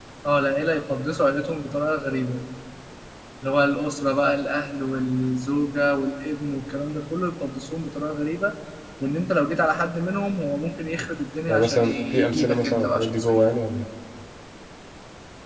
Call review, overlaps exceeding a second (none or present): present